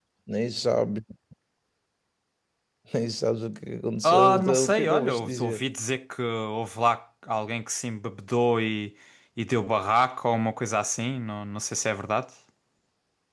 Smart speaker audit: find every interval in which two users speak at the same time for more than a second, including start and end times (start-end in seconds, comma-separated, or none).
4.0-5.6